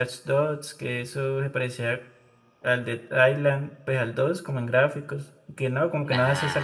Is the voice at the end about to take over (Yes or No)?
No